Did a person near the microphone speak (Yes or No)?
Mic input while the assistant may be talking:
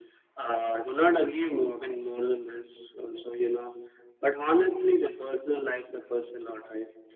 No